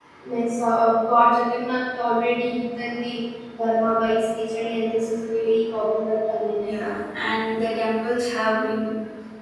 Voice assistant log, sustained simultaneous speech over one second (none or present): none